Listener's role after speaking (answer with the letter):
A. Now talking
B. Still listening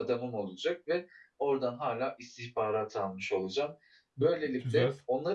B